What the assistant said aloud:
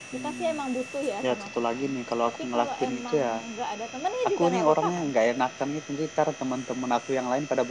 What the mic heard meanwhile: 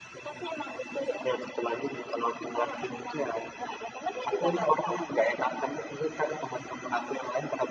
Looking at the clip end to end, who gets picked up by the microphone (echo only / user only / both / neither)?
echo only